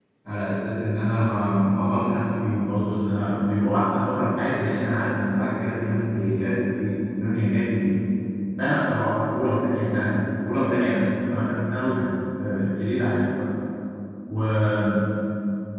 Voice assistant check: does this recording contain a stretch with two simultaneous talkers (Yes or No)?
No